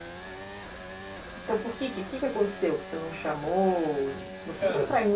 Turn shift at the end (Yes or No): No